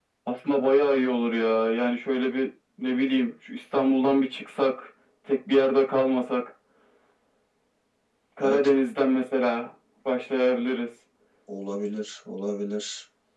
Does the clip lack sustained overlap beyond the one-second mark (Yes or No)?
Yes